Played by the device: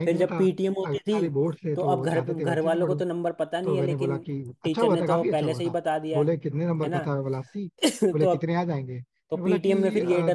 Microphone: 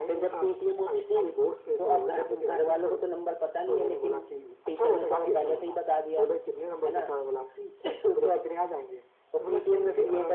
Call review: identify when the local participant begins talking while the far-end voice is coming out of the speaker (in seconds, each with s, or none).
none